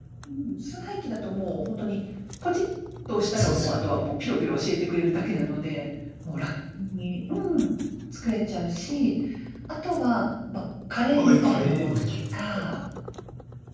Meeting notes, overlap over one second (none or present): present